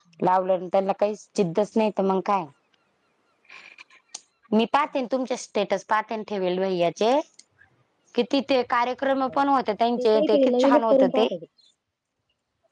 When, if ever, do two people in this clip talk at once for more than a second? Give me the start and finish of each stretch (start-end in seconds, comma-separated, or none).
10.0-11.3